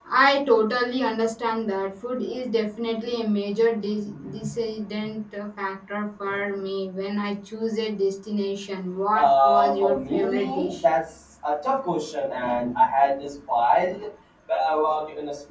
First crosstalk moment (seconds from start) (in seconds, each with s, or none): 9.2 s